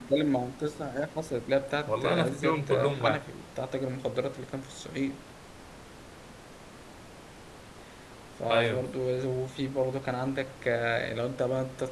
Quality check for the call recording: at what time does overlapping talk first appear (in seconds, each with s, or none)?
1.9 s